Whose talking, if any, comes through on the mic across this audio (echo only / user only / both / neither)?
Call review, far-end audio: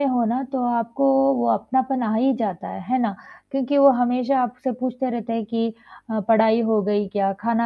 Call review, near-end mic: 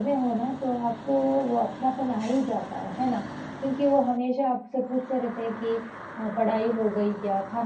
echo only